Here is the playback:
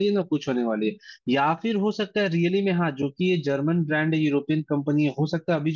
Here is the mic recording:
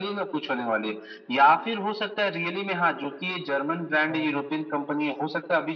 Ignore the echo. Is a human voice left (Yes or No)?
Yes